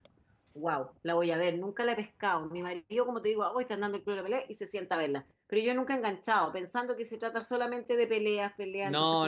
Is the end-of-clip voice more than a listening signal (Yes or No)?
Yes